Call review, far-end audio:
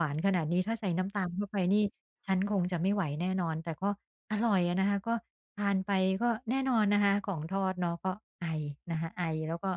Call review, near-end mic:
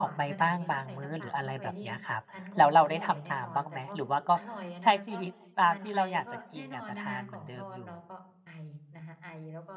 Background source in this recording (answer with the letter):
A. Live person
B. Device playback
B